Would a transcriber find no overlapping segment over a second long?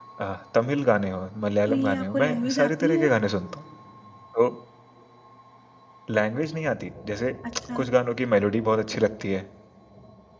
No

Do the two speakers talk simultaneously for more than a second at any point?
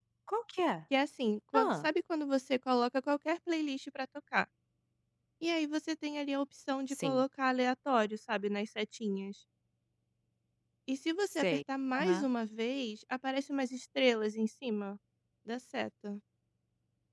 No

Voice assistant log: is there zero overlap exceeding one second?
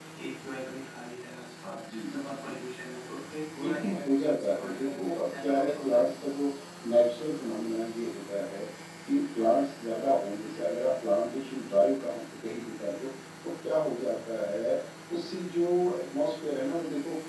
No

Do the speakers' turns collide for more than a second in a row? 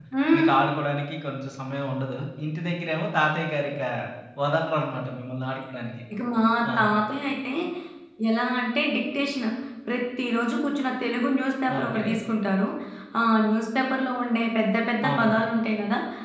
No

